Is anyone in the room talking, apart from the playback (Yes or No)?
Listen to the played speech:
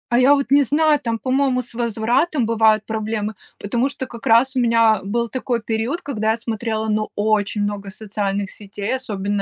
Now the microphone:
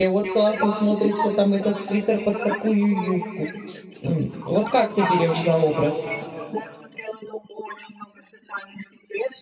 Yes